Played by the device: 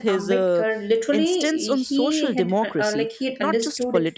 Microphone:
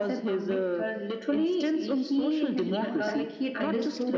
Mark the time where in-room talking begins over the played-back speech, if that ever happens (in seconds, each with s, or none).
2.7 s